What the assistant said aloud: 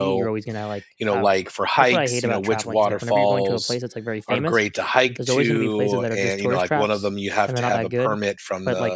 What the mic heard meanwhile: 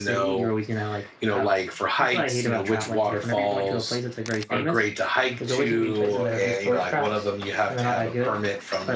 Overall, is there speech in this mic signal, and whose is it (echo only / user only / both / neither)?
echo only